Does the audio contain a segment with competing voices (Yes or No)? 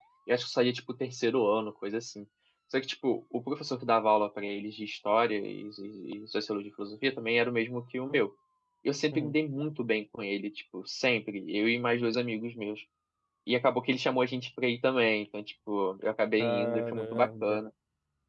Yes